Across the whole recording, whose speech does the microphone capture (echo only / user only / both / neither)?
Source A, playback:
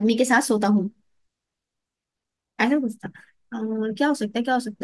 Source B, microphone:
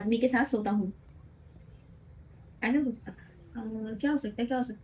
echo only